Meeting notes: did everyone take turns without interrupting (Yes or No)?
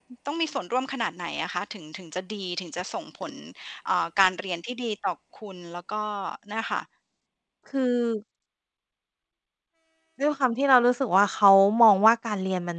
Yes